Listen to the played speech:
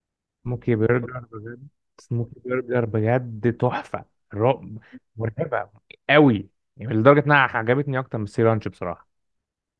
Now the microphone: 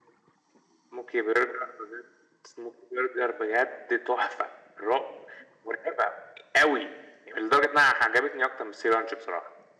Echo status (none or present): present